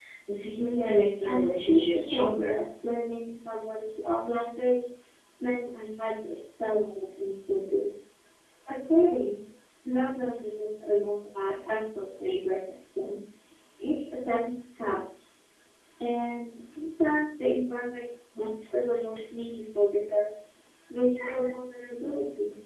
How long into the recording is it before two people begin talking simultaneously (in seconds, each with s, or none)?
0.7 s